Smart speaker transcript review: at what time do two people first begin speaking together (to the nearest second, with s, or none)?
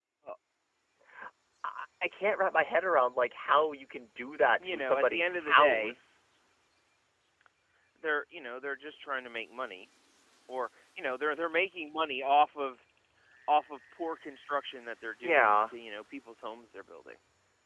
5 s